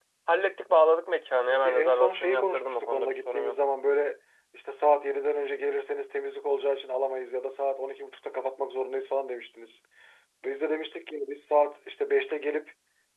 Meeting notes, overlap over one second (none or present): present